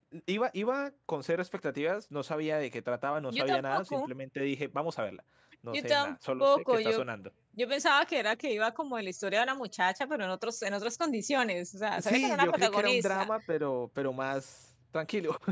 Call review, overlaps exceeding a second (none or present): present